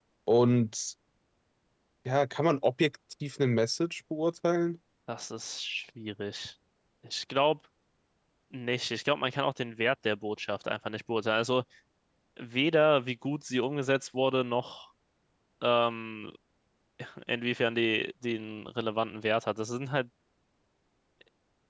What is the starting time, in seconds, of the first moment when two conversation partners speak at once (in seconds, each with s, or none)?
none